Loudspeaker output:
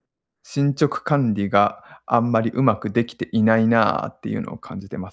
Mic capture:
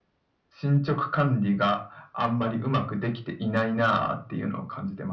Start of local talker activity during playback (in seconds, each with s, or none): none